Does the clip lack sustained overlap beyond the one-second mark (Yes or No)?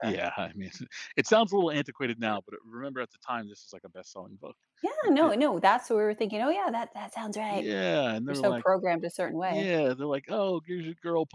Yes